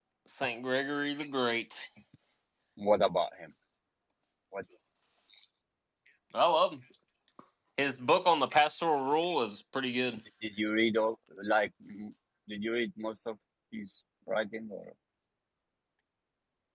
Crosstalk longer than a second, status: none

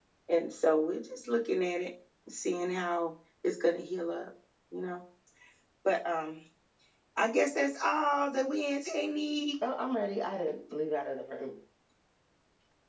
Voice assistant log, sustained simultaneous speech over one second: none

